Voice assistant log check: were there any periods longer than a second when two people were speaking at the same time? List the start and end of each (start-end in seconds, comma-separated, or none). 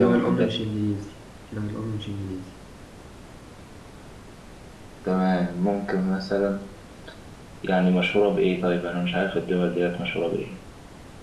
none